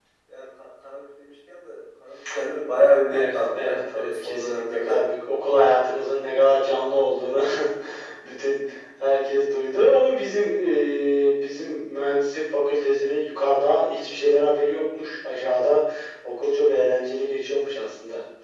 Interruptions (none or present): present